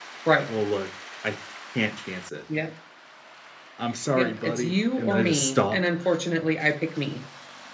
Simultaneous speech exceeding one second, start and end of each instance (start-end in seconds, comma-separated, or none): 4.2-5.8